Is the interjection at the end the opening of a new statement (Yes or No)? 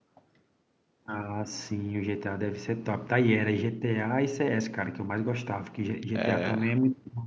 No